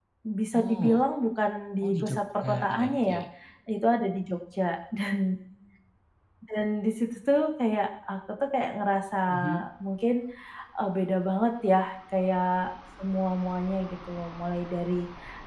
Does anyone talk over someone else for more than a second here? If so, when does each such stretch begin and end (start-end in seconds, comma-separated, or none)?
1.8-3.1